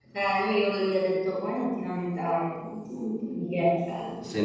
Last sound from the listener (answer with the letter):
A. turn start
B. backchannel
A